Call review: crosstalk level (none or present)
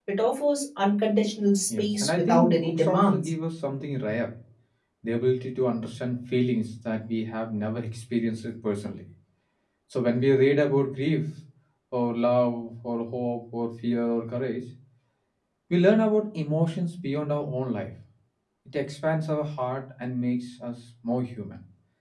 present